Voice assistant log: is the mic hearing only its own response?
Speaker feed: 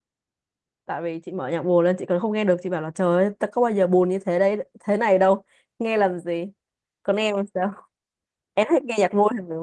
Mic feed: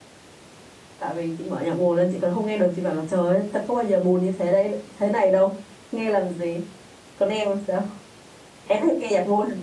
Yes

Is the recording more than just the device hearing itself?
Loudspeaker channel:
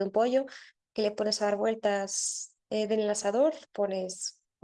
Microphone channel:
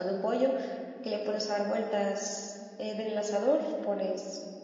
No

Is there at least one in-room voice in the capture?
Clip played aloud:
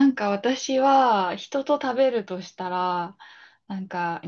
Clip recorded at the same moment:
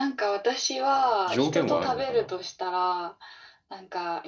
Yes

